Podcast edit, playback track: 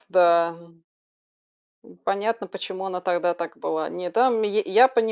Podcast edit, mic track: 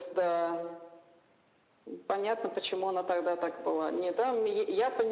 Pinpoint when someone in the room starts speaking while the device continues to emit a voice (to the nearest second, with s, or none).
none